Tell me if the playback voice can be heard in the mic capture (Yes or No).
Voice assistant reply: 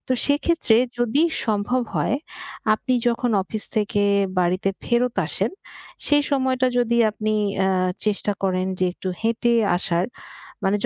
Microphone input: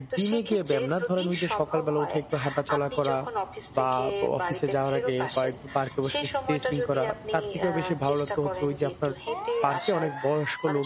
Yes